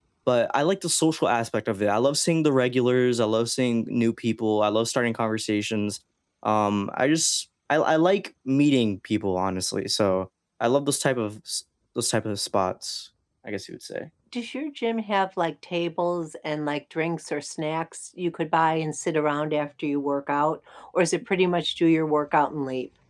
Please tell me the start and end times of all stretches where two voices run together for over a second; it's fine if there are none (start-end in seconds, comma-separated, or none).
none